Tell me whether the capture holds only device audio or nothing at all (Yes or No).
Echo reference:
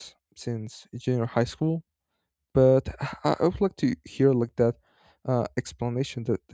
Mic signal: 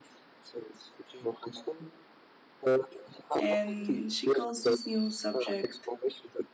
No